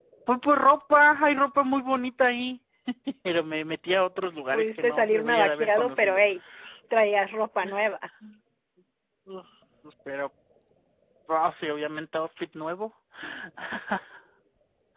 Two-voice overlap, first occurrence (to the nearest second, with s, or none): 5 s